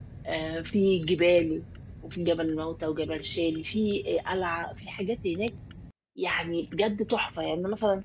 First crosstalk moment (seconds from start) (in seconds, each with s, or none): none